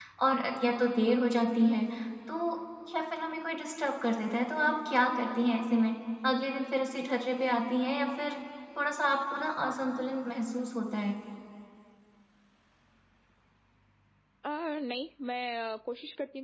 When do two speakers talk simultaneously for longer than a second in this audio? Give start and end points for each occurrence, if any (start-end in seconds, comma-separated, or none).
none